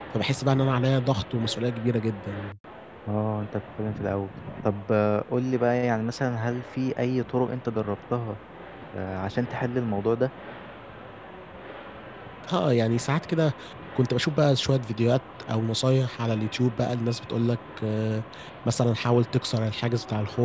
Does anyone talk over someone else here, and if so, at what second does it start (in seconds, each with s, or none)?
none